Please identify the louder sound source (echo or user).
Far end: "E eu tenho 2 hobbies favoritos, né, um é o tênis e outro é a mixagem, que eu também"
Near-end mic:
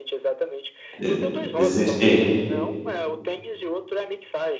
user